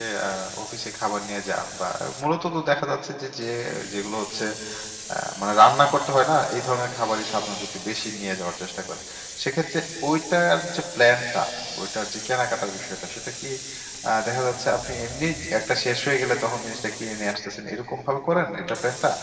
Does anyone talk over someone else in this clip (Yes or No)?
No